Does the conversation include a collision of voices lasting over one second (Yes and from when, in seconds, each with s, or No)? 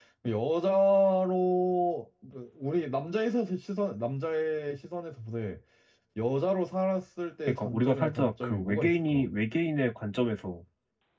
Yes, from 7.5 s